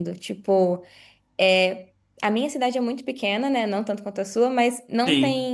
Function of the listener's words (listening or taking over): listening